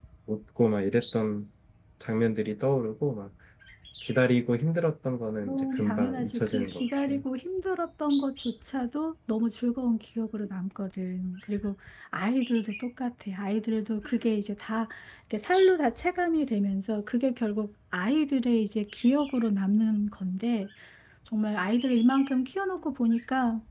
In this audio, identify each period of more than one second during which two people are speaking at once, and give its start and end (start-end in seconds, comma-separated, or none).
5.4-7.2